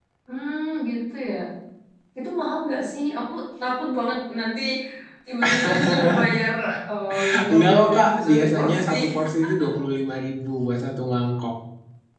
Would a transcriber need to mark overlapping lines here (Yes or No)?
Yes